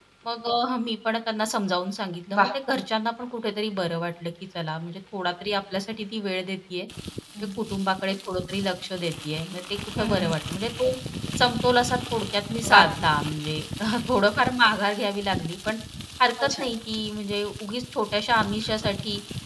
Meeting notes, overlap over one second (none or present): none